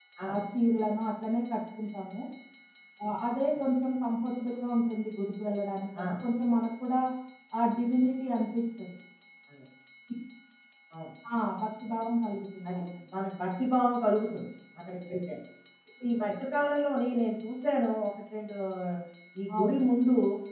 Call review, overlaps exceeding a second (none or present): none